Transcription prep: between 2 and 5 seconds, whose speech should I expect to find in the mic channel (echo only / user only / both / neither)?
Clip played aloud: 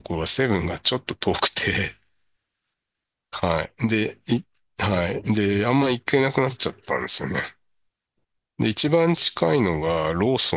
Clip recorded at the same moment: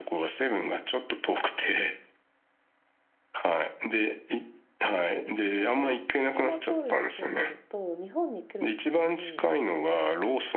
echo only